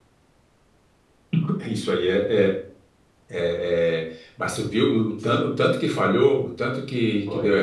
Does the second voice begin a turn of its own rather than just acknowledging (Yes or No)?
Yes